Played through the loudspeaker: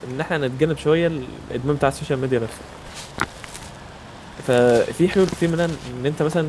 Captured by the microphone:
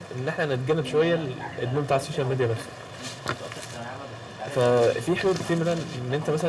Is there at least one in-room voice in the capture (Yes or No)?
Yes